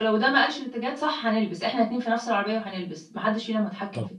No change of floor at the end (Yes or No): No